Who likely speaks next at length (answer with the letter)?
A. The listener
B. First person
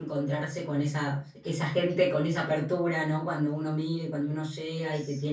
B